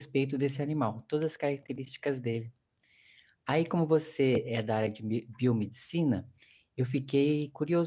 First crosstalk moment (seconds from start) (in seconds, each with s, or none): none